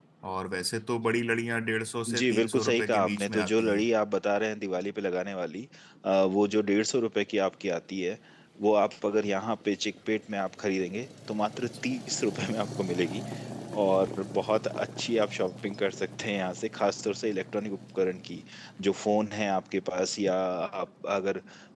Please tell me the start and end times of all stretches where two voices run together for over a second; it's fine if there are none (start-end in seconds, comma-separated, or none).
2.1-3.9